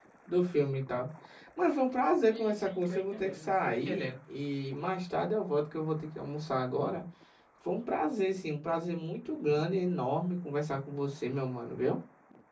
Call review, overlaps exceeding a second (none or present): present